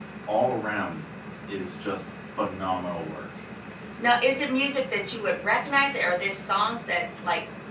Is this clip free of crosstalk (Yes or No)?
Yes